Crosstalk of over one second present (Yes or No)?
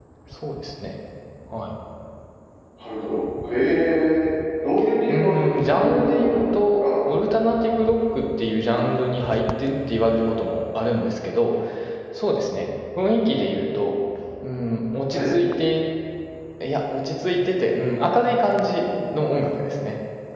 Yes